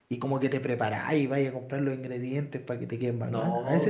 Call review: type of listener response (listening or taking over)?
taking over